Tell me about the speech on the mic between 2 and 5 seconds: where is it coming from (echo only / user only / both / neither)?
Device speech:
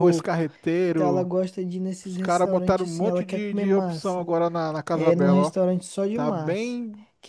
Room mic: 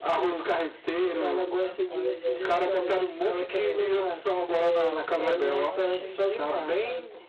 both